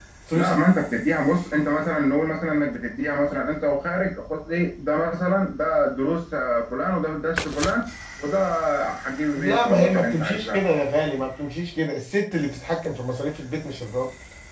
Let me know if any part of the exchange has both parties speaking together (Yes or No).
Yes